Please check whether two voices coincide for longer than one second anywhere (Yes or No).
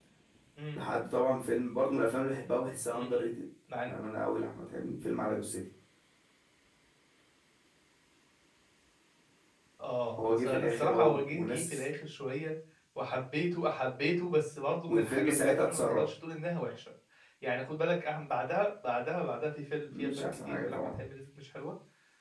Yes